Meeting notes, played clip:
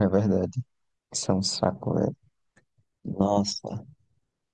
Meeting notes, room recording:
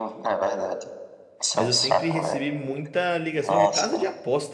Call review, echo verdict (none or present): present